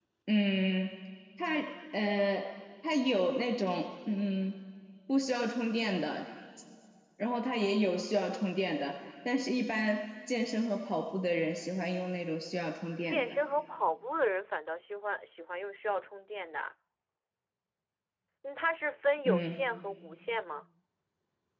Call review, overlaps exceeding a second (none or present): none